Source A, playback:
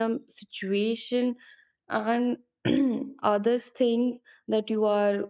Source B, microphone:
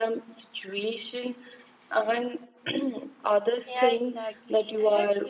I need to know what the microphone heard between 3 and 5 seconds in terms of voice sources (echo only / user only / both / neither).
both